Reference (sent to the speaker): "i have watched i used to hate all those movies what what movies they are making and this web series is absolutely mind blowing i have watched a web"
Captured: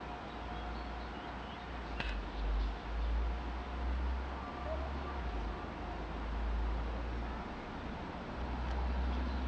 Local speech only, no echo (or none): none